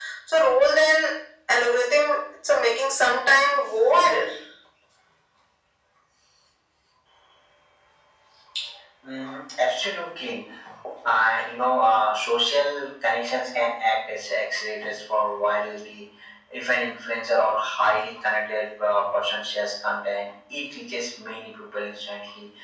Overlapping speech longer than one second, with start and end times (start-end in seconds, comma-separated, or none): none